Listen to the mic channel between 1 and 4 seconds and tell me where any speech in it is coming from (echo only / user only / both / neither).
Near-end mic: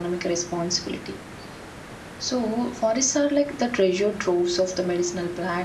user only